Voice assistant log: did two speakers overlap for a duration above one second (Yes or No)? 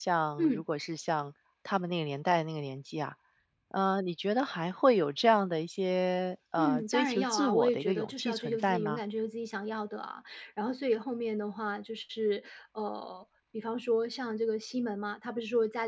Yes